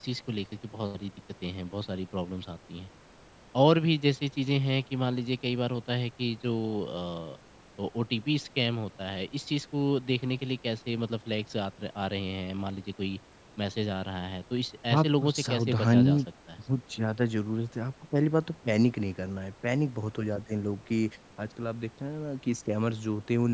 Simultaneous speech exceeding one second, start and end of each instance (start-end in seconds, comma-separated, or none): 14.9-16.2